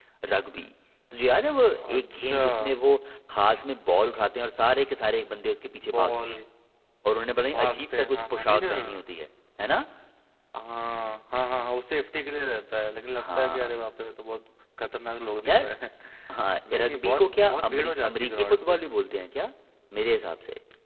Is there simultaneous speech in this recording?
Yes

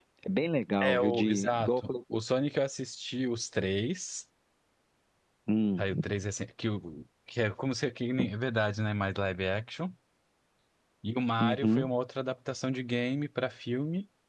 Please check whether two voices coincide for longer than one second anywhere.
Yes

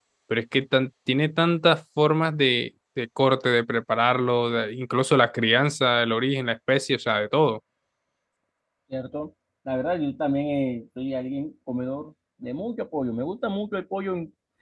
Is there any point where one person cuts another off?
No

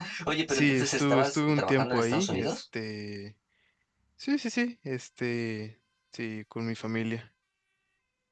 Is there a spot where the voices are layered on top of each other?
Yes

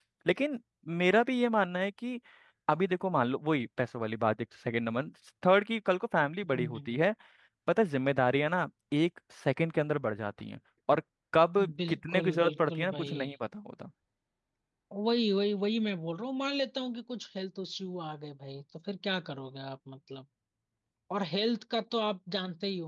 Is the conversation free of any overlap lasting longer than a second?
No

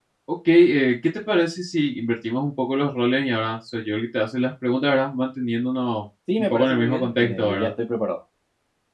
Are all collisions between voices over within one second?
No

